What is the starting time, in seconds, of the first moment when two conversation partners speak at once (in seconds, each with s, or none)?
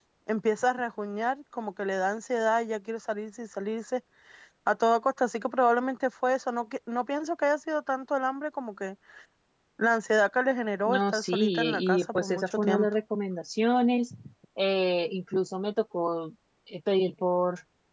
10.8 s